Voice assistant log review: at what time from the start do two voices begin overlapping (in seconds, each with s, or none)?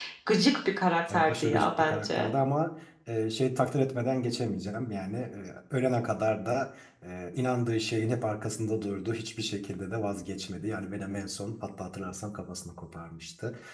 1.1 s